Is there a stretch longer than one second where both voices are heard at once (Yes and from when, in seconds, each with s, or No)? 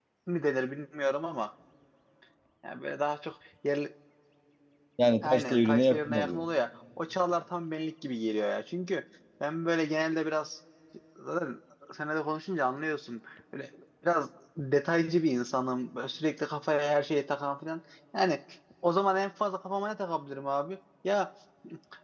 Yes, from 5.2 s